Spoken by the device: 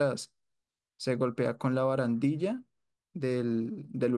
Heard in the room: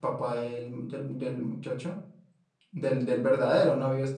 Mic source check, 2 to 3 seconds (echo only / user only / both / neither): user only